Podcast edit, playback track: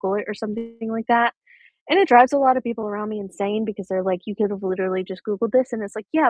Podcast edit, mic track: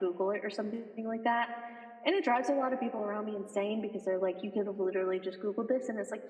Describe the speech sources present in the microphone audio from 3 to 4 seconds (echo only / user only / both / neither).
echo only